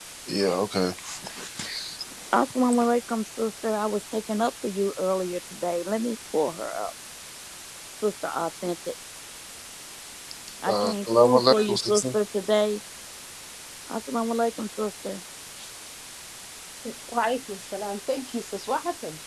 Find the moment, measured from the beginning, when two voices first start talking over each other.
10.7 s

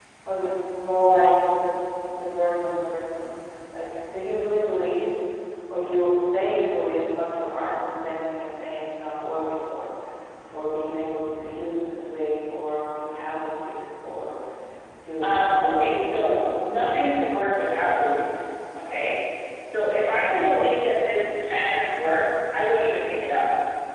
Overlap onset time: 15.2 s

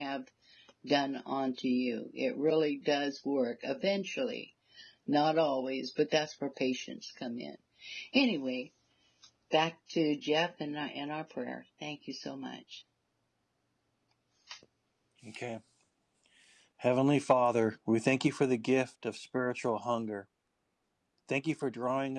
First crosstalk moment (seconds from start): none

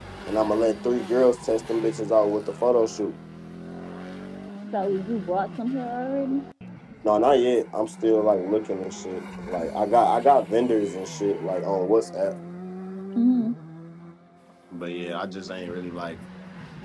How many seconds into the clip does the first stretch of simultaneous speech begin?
none

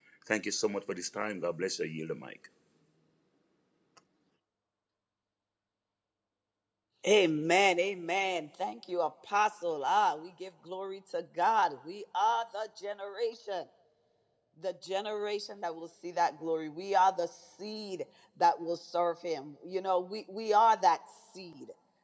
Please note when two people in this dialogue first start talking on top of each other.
none

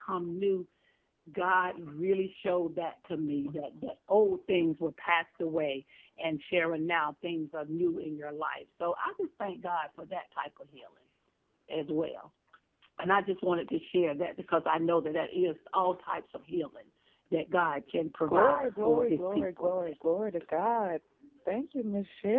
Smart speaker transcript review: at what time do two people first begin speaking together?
18.3 s

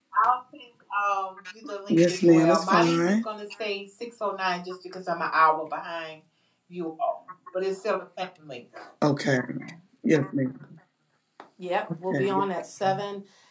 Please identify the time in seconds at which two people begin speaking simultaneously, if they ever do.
1.9 s

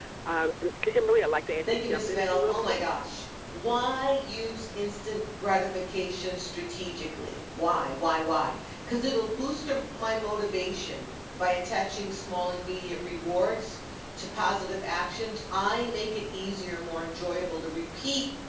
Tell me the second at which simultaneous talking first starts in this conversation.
1.7 s

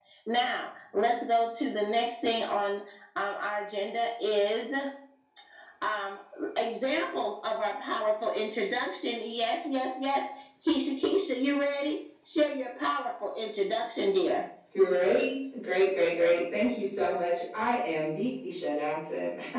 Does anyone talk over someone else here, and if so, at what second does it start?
none

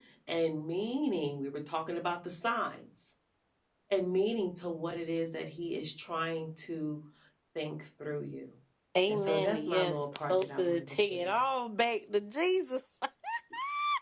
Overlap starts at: 9.1 s

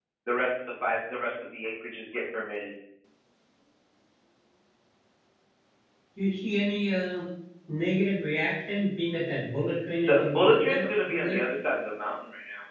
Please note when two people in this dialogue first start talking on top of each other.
10.0 s

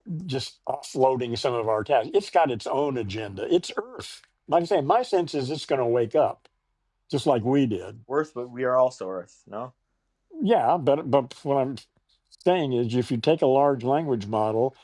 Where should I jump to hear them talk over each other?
none

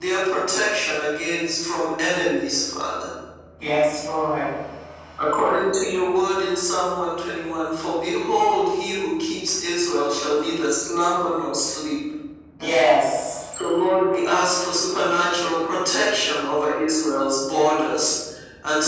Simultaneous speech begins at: none

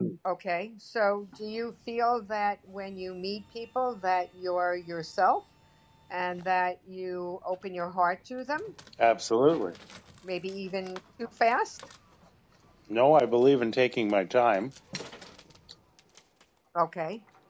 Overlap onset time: none

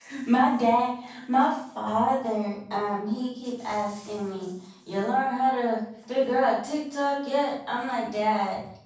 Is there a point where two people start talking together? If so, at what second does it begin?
none

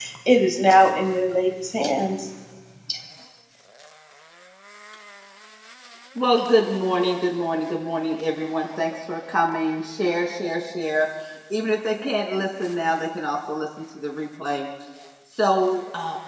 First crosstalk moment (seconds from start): none

